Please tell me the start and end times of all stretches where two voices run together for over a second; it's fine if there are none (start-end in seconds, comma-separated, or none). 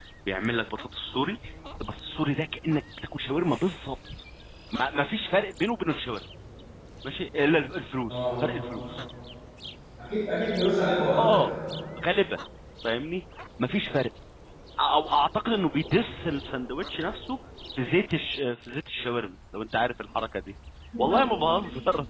none